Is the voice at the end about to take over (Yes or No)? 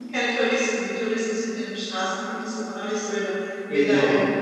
Yes